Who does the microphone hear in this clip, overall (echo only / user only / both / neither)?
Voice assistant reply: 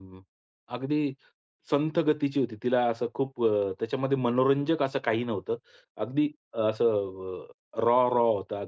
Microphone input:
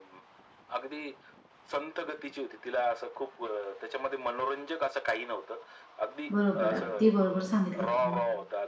both